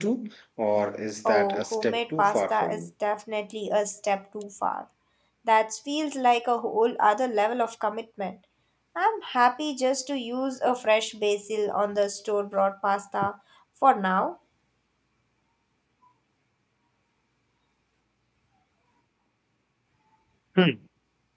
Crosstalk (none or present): present